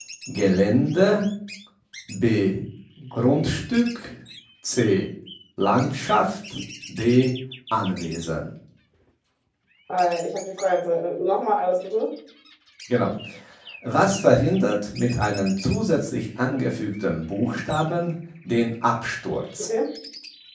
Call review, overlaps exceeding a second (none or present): none